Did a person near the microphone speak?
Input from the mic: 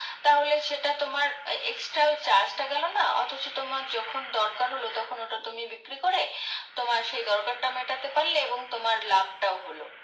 No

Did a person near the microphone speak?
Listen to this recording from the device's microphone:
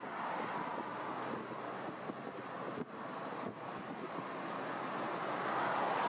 No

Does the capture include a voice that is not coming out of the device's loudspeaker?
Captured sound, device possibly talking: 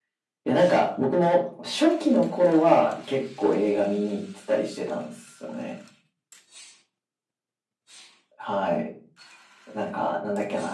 Yes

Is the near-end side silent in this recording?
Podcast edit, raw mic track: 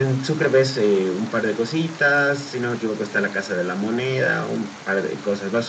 Yes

